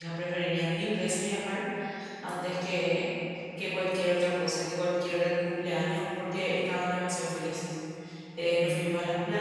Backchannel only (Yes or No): Yes